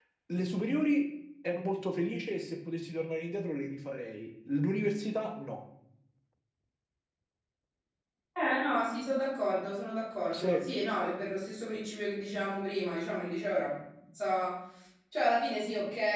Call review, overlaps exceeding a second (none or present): none